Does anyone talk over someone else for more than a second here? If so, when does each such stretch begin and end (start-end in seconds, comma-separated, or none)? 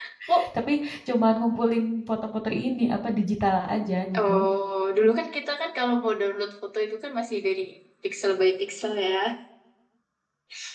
none